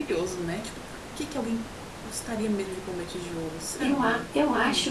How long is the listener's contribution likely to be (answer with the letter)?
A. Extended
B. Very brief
A